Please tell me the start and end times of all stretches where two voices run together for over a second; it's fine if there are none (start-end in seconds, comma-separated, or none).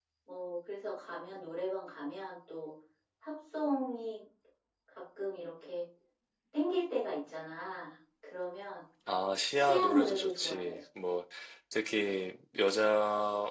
9.5-10.8